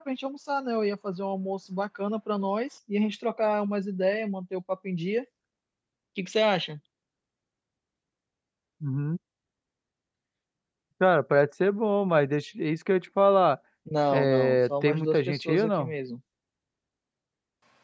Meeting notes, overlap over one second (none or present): present